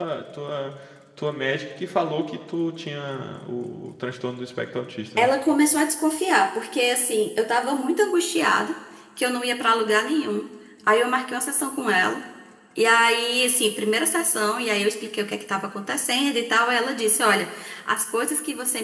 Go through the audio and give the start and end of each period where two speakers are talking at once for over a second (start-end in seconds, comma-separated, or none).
none